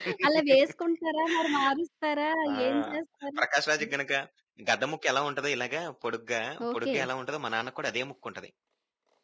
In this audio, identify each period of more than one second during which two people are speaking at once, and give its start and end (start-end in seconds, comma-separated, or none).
none